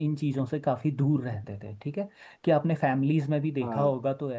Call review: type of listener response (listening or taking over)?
listening